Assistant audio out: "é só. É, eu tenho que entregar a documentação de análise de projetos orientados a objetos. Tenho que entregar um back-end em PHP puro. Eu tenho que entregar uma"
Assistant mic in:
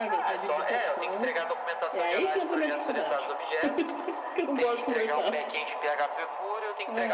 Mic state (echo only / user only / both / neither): both